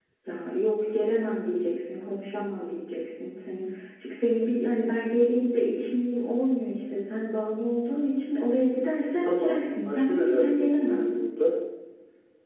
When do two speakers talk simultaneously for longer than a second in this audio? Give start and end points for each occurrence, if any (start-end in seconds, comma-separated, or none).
8.9-11.0